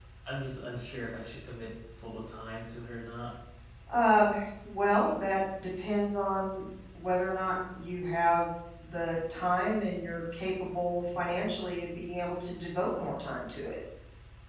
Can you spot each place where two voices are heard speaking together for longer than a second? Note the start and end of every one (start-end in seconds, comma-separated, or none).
none